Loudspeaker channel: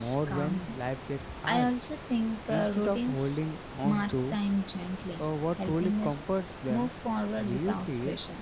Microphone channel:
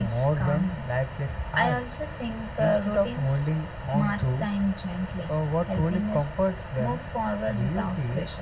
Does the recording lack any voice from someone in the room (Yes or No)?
Yes